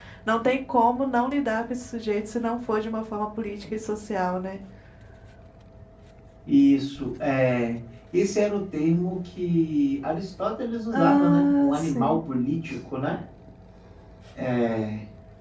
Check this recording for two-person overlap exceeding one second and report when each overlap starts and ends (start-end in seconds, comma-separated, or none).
10.9-12.2